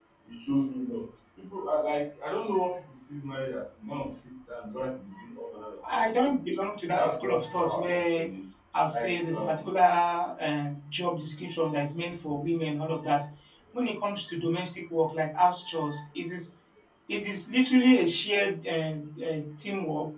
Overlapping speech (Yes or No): Yes